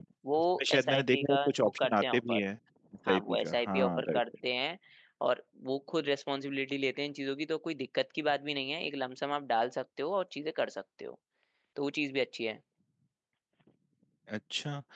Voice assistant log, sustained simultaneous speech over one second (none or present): present